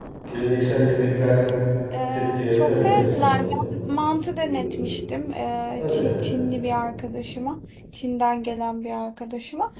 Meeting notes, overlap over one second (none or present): present